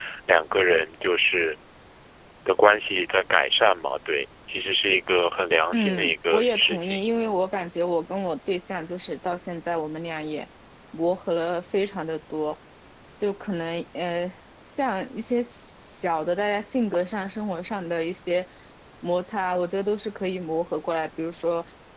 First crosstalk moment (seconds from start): 5.7 s

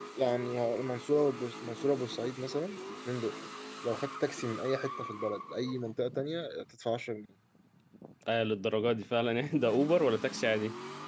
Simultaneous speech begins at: none

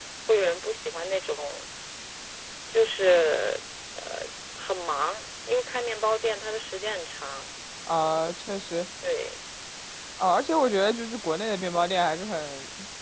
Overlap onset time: none

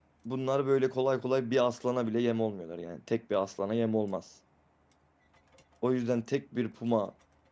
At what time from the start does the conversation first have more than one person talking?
none

